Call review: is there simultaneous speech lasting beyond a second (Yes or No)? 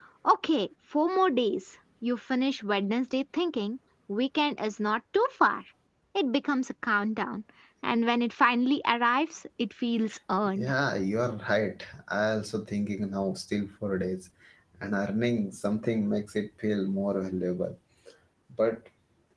No